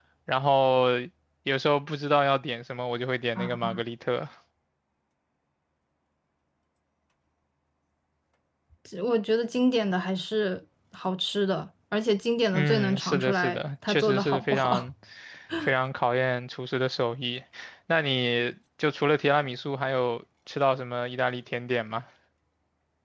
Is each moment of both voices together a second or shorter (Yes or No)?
No